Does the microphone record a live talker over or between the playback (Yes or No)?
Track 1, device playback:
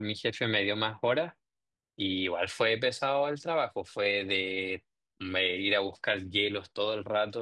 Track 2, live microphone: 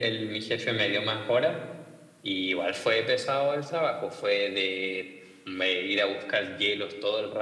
No